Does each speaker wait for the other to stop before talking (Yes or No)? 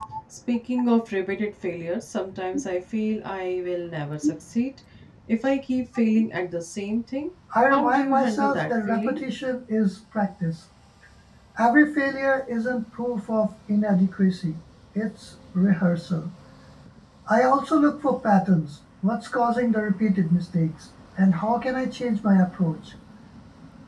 No